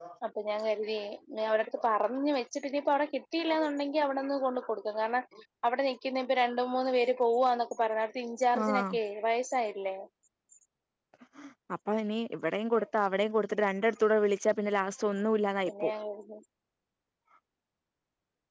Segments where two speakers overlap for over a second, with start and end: none

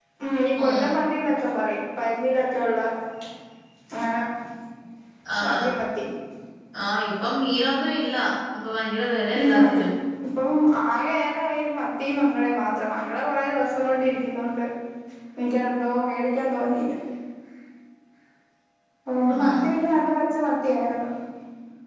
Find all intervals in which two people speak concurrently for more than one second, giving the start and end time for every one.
none

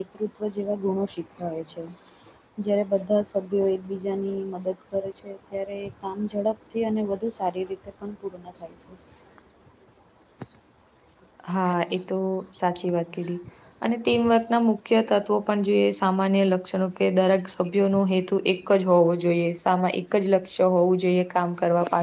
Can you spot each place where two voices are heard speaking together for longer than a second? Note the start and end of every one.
none

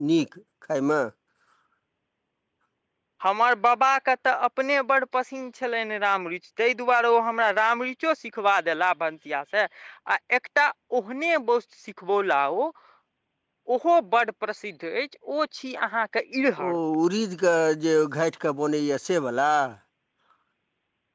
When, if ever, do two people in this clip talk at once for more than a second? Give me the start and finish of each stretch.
none

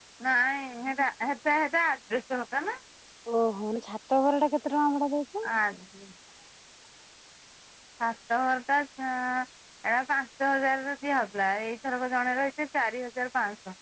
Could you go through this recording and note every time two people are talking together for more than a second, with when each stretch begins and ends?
none

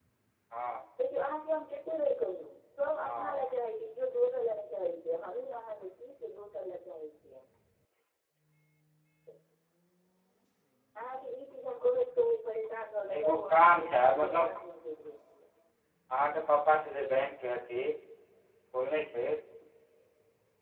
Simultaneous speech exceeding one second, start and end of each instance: 13.2-14.5

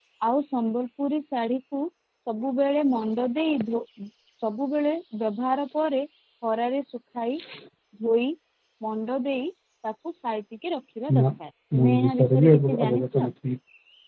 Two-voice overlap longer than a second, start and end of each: 11.8-13.3

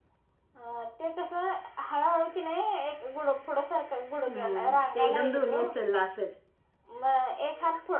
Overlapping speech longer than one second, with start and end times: 4.3-5.6

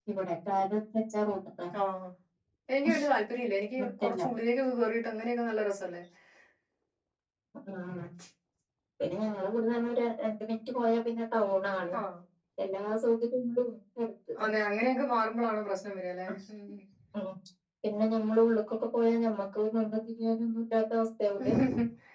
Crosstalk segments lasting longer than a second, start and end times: none

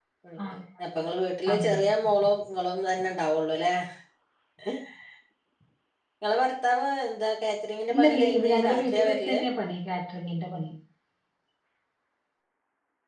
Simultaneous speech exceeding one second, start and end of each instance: 7.9-9.4

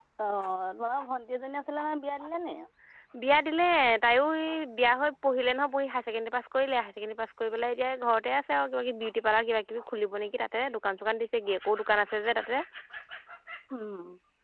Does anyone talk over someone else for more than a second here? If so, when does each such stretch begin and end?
none

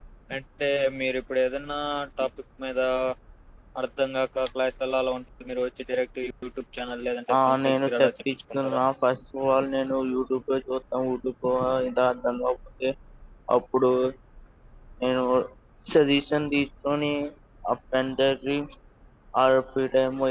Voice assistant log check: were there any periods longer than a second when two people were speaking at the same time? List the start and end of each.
7.4-8.8

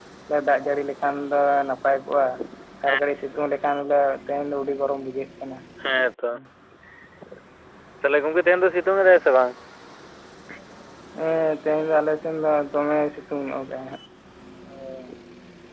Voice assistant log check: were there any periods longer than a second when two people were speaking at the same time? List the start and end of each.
none

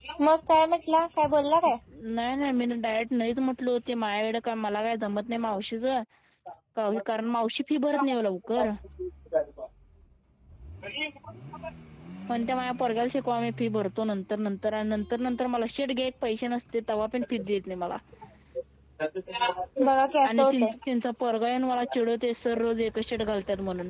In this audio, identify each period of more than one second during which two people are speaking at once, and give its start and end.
none

